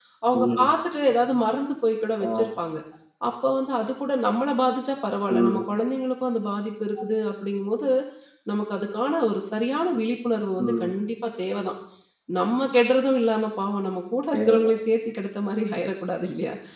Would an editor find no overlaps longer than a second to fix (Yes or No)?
Yes